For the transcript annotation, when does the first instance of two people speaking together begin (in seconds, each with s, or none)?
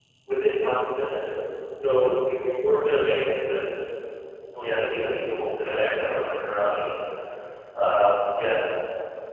4.6 s